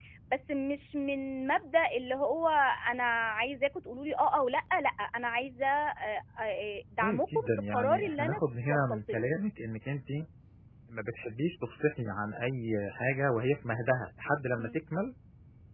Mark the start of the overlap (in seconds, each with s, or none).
7.0 s